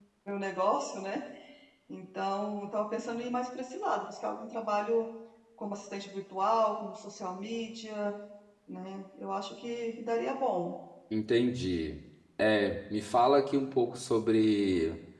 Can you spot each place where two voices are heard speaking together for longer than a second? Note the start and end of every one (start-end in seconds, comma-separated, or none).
none